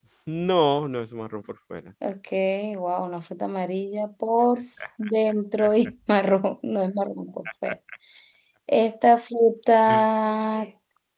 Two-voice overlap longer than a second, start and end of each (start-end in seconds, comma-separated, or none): none